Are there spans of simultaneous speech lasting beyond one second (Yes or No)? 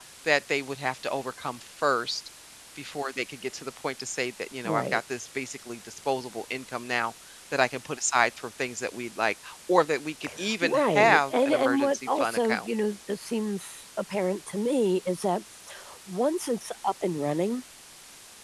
Yes